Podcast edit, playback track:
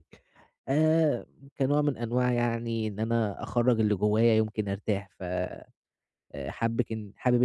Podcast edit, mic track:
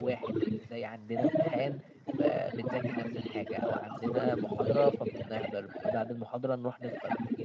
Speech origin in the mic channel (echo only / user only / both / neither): both